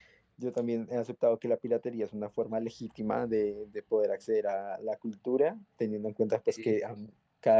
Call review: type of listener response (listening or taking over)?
listening